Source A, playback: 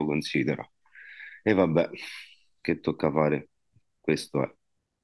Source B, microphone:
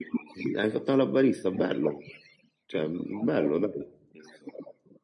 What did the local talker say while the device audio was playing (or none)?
eh. Hai fatto la barista, bello. Cioè, bello, dai.